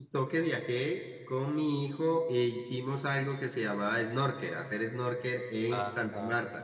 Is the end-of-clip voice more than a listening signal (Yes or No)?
Yes